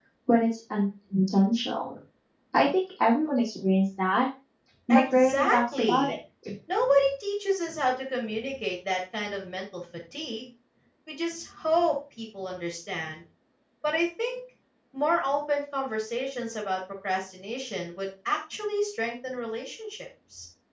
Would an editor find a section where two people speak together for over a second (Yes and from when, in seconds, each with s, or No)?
Yes, from 4.9 s